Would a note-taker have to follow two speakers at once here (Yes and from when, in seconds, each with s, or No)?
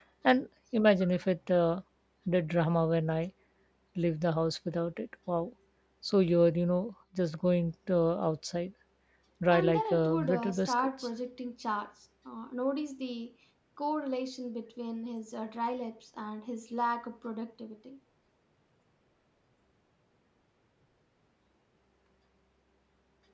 Yes, from 9.5 s